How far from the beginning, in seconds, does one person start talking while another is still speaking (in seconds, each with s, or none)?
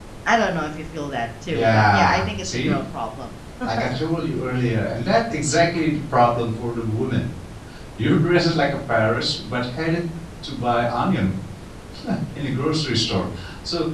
1.5 s